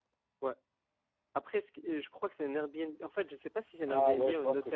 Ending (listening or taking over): taking over